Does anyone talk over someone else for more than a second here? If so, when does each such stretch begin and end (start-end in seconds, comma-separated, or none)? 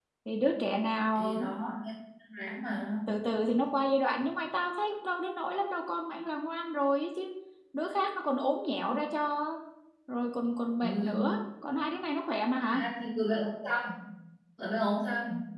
none